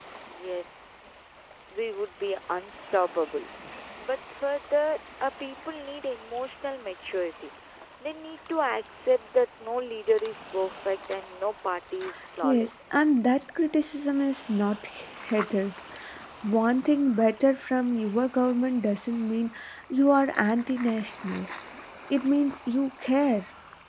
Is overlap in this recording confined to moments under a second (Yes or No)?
Yes